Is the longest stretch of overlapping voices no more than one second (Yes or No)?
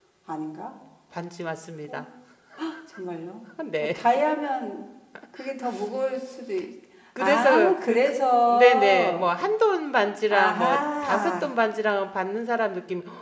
No